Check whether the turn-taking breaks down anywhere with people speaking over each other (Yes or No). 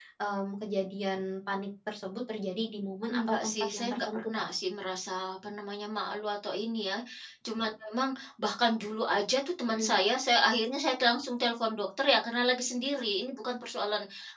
Yes